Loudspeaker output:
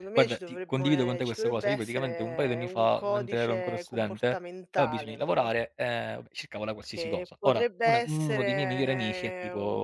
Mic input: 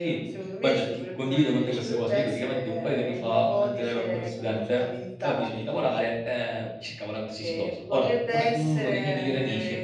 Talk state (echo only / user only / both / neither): echo only